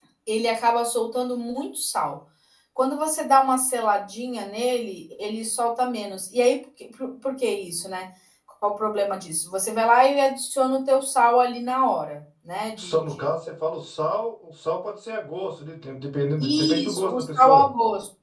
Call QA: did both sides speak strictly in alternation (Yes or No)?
No